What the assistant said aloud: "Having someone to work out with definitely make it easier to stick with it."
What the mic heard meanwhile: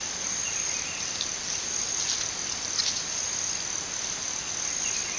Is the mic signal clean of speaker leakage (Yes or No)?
Yes